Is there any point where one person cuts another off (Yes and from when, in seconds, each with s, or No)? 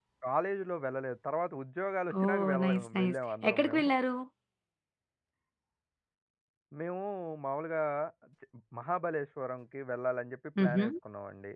Yes, from 2.2 s